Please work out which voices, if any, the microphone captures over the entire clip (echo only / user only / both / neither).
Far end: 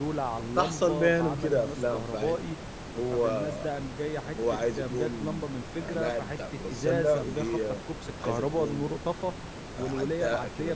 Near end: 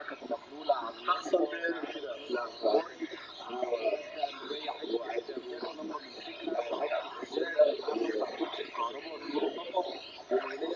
echo only